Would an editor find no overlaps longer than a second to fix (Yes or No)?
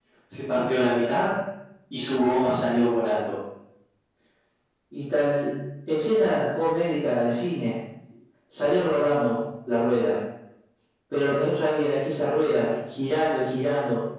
Yes